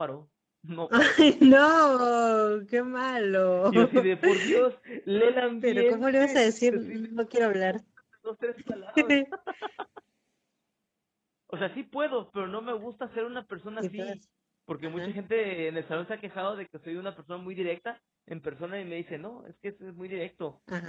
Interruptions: present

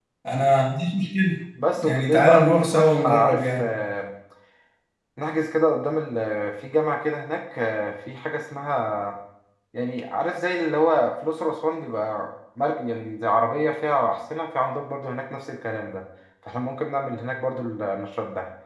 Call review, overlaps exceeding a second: present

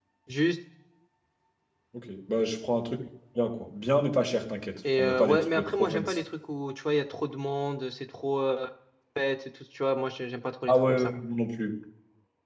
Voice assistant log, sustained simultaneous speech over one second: present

